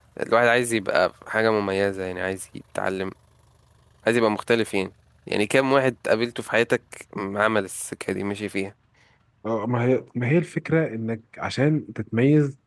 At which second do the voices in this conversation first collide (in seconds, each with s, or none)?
none